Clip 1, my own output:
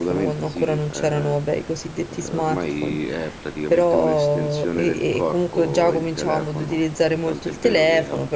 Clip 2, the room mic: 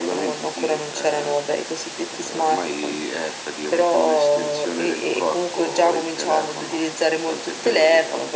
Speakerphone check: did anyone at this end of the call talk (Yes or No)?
No